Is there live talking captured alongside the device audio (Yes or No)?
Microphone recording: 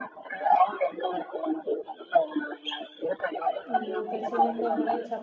Yes